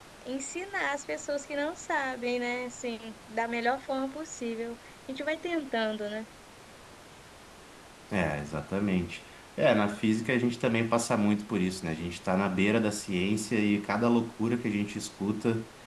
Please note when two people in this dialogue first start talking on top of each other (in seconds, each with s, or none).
none